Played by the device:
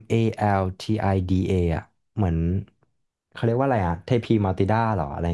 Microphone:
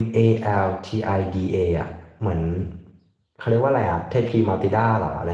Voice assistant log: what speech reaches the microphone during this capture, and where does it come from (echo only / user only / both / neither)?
echo only